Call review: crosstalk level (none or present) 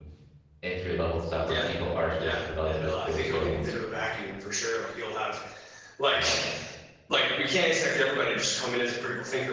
present